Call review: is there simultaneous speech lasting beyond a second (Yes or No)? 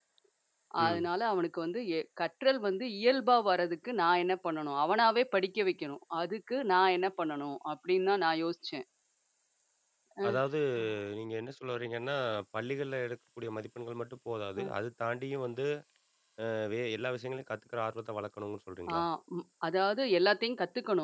No